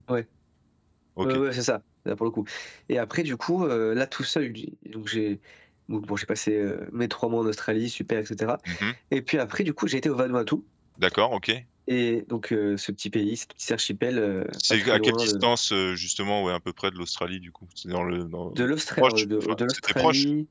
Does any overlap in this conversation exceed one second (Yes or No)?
Yes